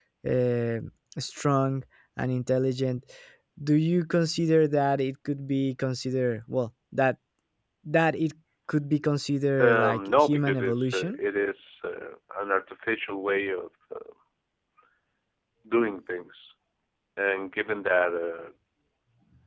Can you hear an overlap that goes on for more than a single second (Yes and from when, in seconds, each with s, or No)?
Yes, from 9.6 s